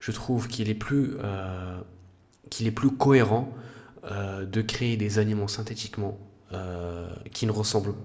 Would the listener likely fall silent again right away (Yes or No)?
Yes